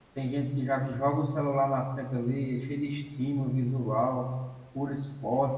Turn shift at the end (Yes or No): No